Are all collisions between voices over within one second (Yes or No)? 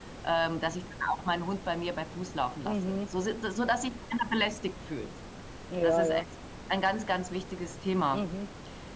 Yes